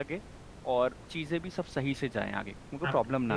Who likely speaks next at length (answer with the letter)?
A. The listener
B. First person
A